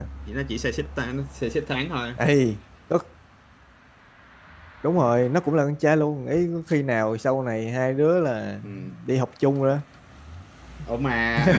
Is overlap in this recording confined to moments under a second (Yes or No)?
Yes